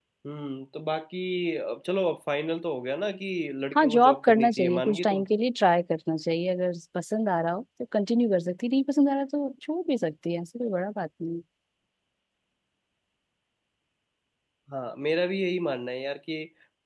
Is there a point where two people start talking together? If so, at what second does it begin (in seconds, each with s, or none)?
3.8 s